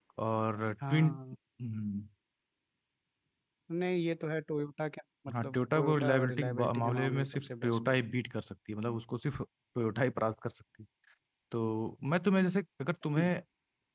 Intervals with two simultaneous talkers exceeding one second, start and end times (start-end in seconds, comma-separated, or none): 5.4-7.9